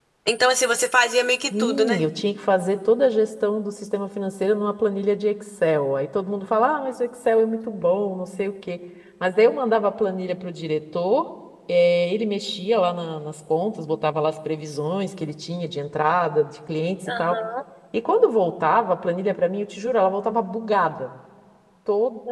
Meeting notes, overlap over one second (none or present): none